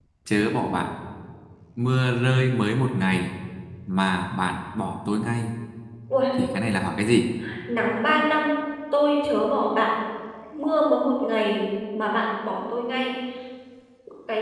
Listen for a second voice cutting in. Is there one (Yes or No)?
No